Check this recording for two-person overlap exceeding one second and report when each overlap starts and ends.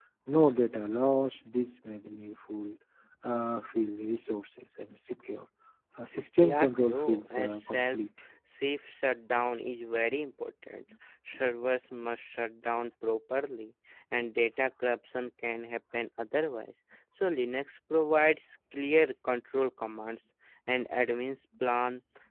6.4-8.0

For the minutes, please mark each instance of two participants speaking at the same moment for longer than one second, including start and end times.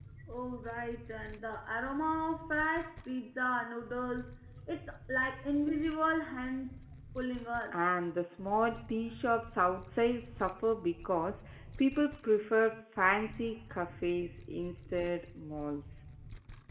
none

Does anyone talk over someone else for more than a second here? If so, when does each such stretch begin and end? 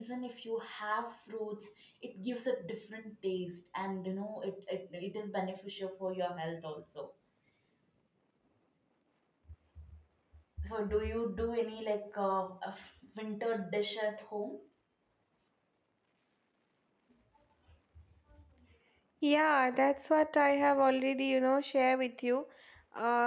none

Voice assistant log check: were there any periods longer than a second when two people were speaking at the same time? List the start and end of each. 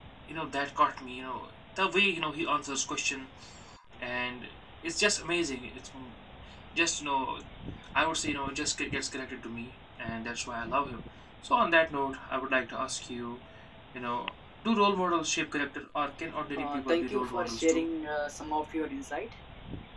16.6-17.9

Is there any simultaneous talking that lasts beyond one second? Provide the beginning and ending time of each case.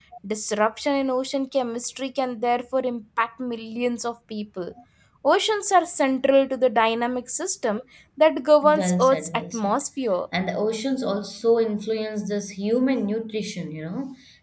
8.6-9.8

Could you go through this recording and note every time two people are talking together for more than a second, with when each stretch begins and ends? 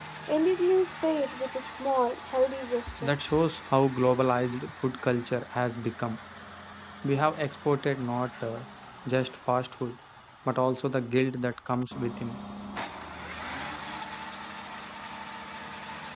none

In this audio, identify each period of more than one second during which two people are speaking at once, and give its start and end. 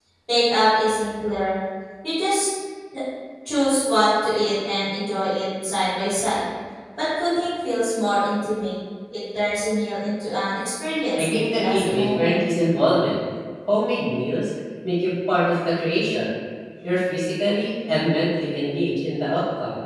11.2-12.4

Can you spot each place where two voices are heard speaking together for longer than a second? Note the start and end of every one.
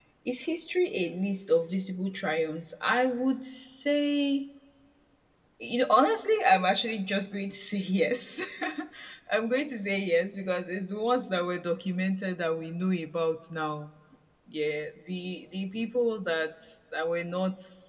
none

